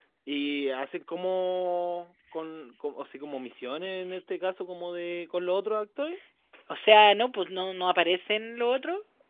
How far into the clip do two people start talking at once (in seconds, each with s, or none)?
none